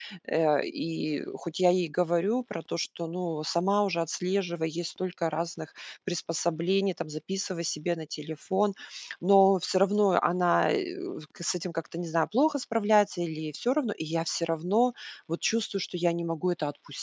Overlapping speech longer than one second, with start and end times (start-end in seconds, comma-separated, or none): none